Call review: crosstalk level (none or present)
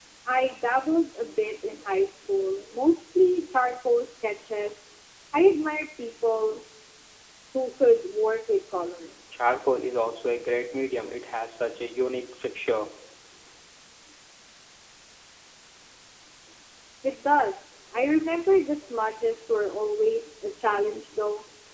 none